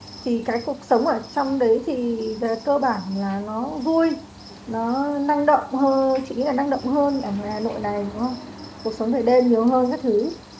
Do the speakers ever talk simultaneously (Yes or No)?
No